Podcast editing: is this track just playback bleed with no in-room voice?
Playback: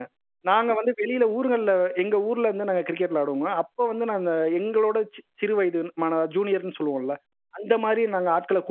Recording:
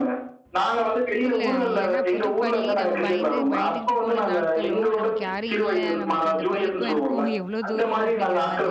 No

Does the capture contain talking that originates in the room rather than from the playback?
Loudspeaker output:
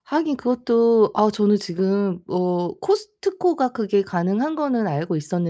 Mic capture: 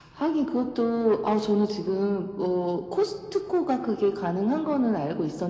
No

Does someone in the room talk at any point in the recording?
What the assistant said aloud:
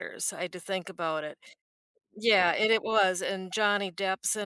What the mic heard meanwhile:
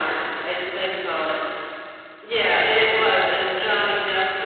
No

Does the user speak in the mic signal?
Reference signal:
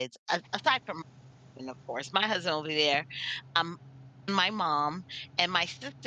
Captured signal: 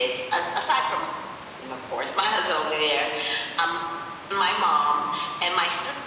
No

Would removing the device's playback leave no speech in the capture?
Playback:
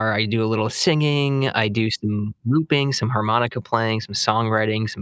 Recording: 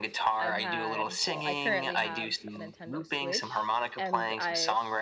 No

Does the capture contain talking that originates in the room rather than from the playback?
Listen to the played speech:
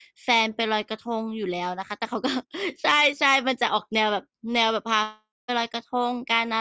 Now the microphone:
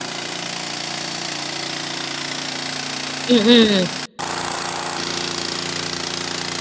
Yes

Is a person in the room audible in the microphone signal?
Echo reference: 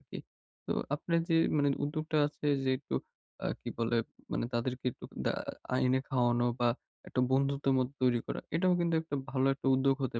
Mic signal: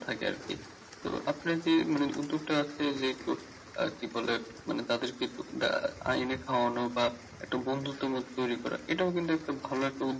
No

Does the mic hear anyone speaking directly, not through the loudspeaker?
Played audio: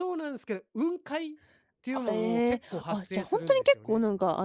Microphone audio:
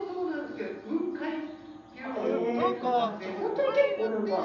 Yes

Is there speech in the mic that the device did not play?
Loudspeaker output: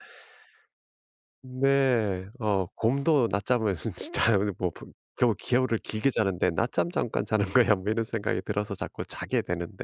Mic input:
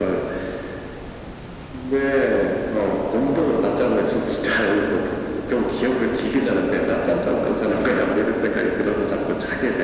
No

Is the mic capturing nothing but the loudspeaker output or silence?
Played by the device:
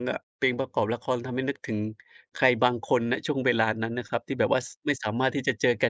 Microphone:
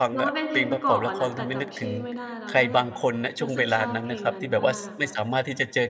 No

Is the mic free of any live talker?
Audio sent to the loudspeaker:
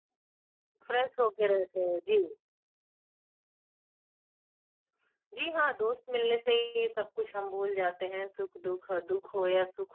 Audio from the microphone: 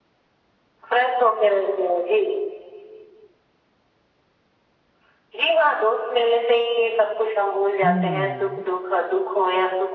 No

